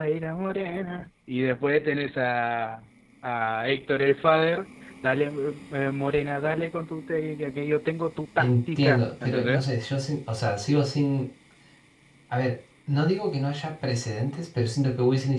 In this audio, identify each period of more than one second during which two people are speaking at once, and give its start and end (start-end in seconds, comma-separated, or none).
8.4-9.6